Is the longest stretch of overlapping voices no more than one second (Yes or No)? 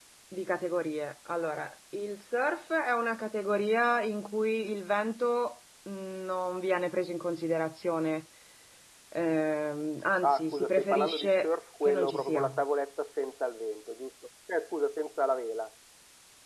No